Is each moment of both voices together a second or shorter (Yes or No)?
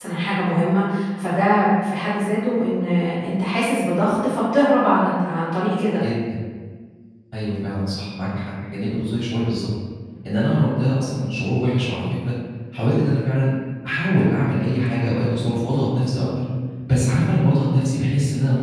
Yes